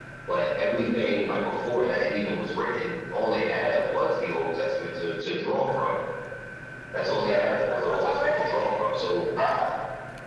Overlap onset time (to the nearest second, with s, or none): 7 s